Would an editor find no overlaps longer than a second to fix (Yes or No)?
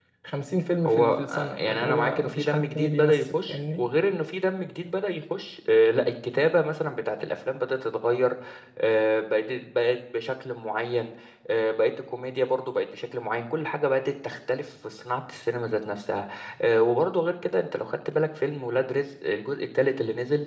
No